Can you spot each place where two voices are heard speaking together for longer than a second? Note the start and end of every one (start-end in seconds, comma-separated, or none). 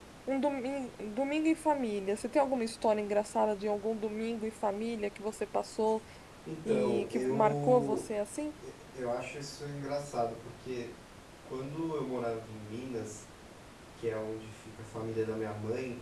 6.7-8.0